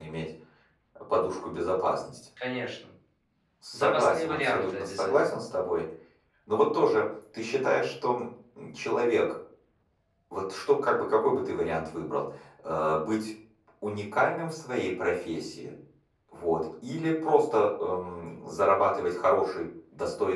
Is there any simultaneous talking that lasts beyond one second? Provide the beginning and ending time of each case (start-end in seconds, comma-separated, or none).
3.7-5.1